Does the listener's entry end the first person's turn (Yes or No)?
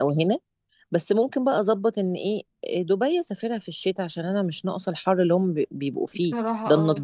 No